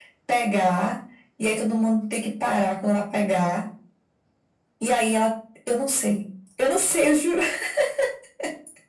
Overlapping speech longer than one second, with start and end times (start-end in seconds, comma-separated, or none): none